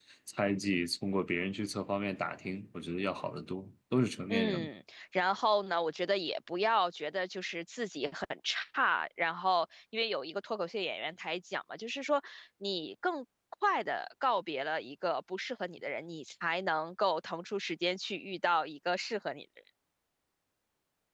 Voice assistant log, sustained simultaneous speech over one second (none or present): none